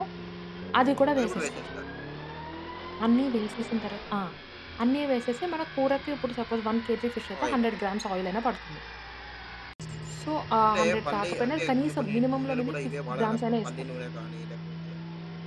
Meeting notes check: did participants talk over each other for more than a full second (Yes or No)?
Yes